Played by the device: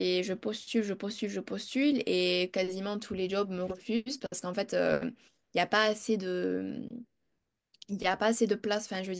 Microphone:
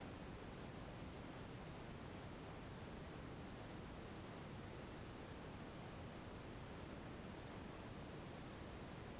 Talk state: neither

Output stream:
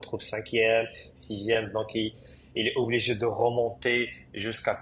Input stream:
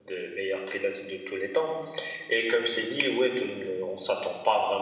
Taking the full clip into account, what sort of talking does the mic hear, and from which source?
user only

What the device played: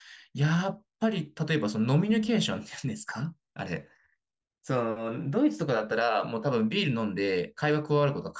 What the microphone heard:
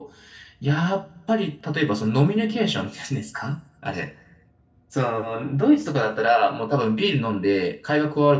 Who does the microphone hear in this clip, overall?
echo only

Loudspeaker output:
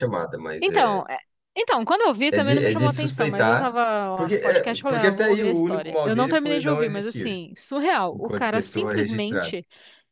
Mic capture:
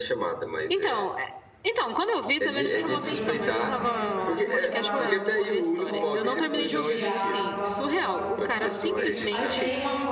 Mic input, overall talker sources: both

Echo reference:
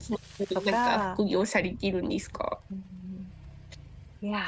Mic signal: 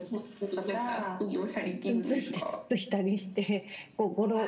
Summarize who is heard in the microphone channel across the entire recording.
both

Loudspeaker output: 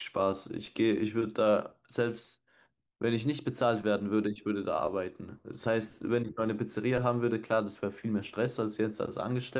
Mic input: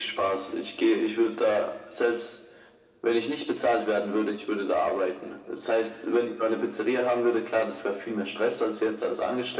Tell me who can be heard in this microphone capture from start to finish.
echo only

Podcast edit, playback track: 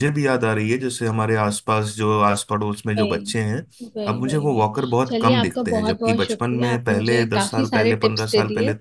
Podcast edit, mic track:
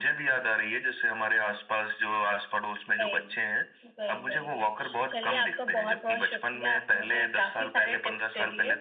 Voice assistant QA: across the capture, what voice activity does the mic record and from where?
echo only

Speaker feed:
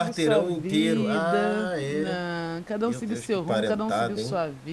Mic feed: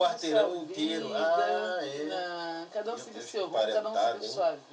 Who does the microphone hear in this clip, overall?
echo only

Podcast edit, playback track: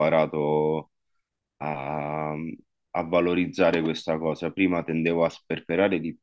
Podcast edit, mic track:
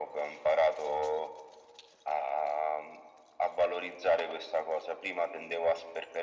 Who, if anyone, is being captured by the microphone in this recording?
echo only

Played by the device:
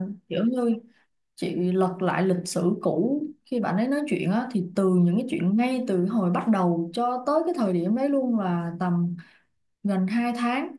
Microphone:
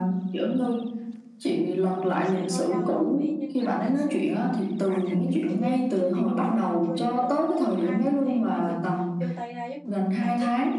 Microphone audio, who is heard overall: both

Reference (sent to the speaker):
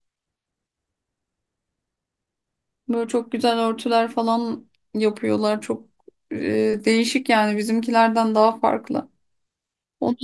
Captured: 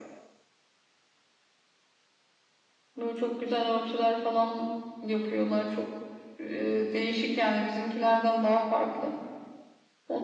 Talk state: echo only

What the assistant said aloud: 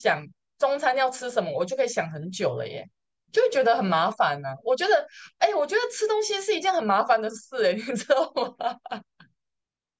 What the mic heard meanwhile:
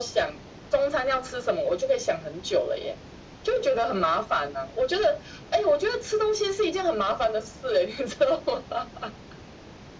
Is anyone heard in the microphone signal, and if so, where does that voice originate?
echo only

